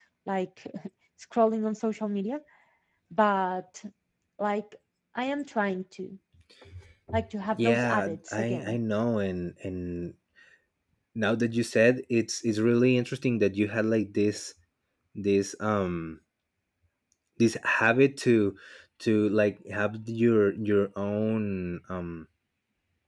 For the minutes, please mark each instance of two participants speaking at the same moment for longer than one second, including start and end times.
7.5-8.8

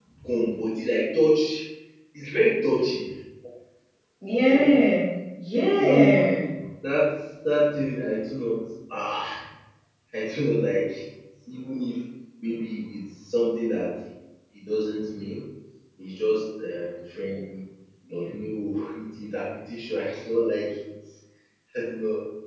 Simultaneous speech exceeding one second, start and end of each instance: none

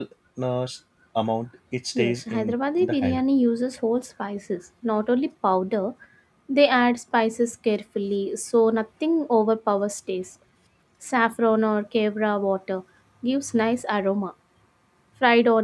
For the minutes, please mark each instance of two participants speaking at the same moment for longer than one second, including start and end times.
2.0-3.2

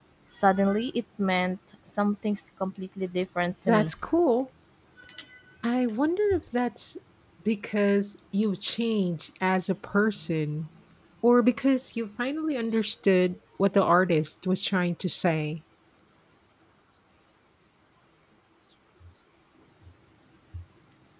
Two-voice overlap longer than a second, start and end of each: none

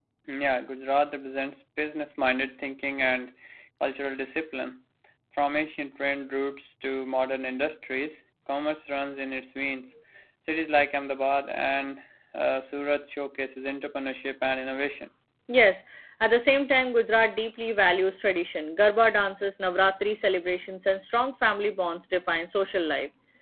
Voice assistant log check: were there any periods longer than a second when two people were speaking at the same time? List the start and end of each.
none

